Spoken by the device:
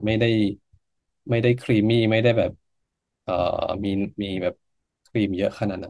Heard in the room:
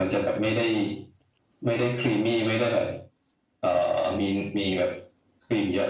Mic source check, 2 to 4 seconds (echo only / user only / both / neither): echo only